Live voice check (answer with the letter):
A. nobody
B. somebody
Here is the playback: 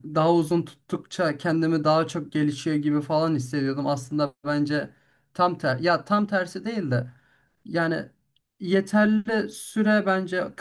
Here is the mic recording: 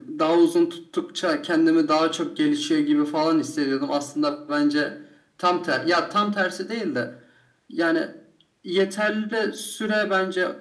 A